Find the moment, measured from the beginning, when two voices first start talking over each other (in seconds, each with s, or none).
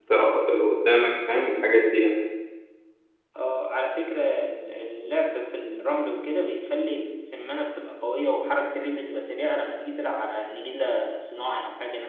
none